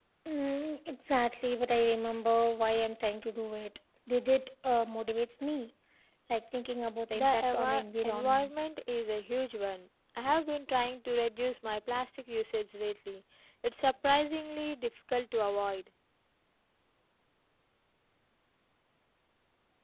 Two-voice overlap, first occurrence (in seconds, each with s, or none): 7.1 s